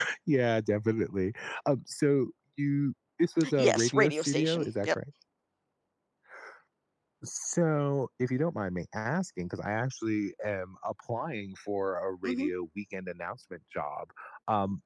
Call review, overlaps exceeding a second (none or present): present